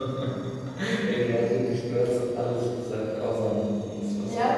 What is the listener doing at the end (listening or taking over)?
taking over